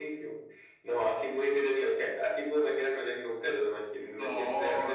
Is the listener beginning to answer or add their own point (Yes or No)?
No